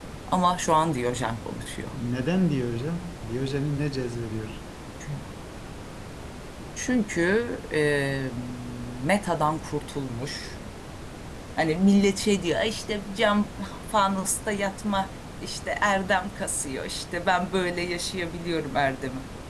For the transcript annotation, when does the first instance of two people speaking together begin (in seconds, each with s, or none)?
none